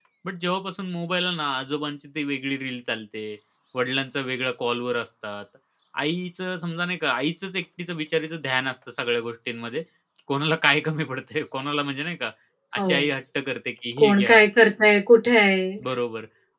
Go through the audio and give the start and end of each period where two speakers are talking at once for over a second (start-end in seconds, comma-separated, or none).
none